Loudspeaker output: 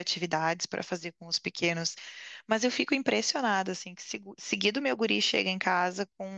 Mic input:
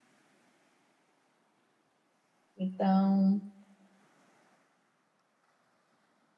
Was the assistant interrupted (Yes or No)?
Yes